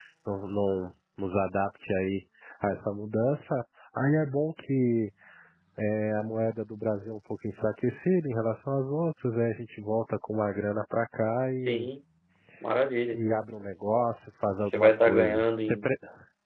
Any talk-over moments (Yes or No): Yes